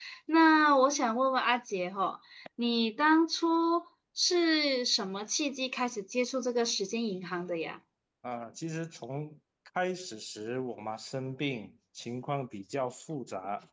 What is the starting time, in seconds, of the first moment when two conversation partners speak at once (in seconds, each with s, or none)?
none